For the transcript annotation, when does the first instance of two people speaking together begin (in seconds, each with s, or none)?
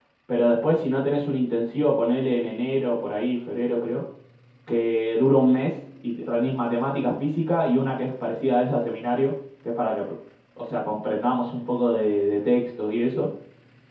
none